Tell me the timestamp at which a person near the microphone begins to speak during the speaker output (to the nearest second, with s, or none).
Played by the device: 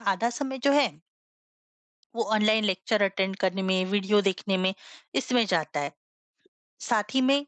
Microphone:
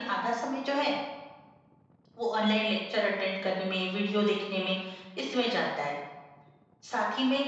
none